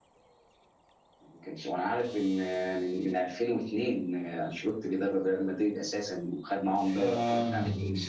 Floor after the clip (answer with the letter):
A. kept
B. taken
B